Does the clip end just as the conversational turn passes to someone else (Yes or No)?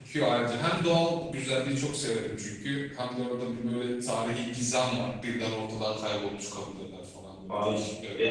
Yes